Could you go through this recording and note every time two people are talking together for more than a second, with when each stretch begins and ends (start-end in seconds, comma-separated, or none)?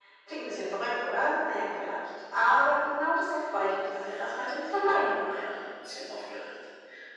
4.0-5.5